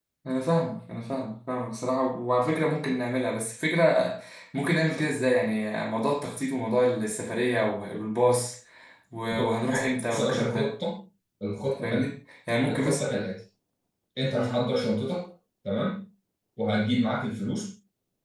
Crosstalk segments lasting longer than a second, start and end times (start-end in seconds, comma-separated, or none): 9.3-10.7